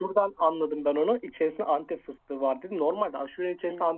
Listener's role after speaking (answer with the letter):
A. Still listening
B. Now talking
A